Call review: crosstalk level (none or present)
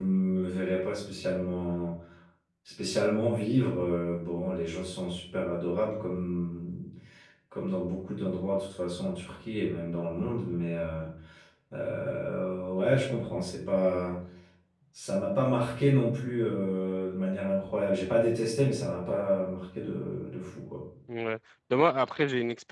none